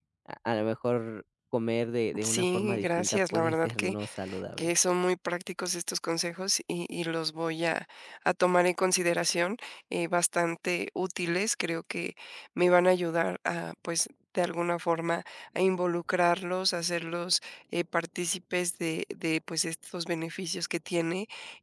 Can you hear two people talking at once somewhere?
Yes, from 2.1 s

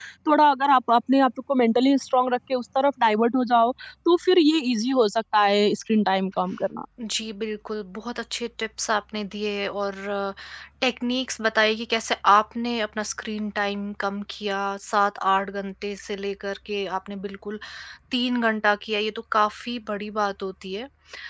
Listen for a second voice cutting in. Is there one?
No

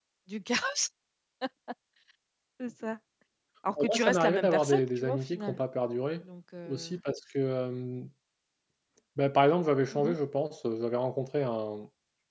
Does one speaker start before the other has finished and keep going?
Yes, from 3.8 s

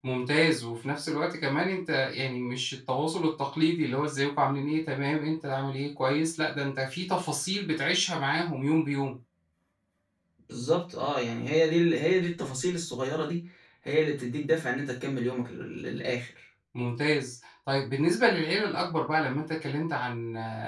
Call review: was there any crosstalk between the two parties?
No

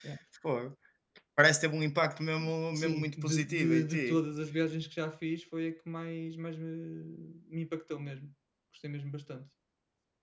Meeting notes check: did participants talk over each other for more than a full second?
Yes, from 2.7 s

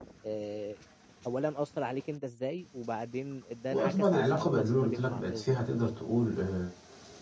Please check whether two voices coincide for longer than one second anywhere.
Yes, from 3.7 s

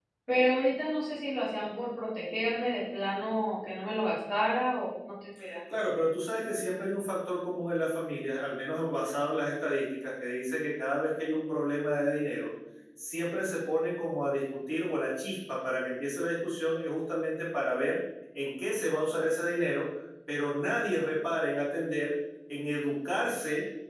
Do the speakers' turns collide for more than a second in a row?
No

